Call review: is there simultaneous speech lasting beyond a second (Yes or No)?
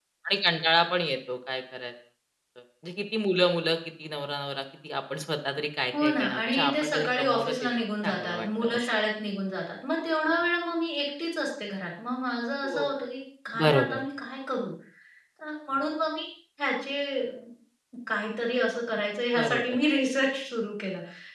Yes